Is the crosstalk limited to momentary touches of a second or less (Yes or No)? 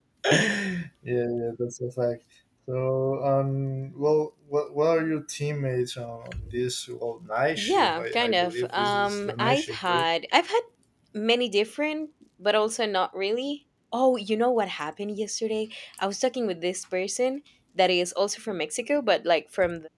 No